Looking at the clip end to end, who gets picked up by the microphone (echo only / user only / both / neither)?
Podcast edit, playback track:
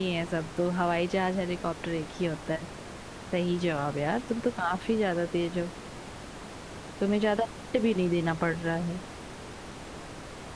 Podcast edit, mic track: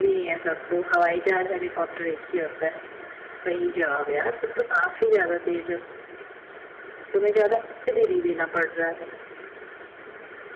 echo only